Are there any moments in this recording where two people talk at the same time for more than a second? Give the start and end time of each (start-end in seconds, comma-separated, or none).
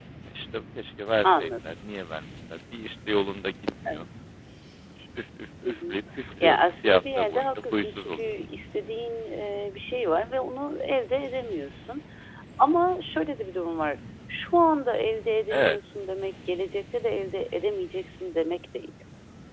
6.4-8.2